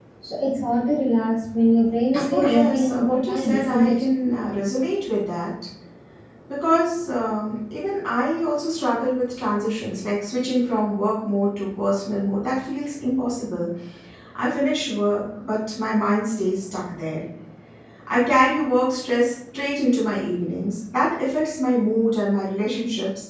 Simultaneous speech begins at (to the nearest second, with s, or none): 2 s